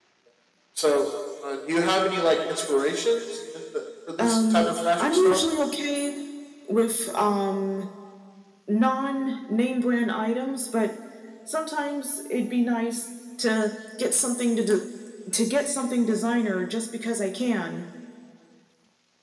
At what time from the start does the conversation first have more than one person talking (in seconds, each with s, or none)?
4.2 s